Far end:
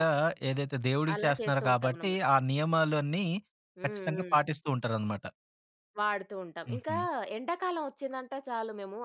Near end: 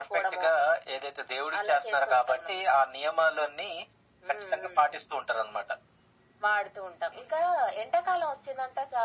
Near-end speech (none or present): none